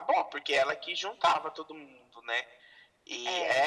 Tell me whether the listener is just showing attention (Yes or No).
Yes